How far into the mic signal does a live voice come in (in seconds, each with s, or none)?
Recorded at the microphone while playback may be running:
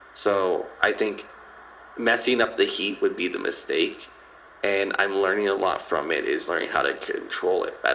none